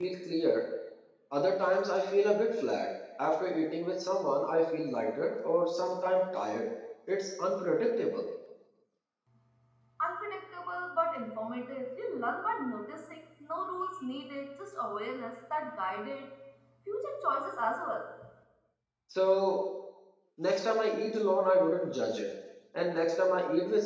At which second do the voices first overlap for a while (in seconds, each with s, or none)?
none